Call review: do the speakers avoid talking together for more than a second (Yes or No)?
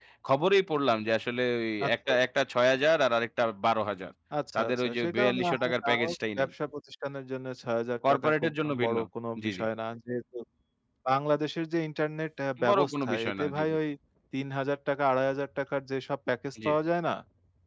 No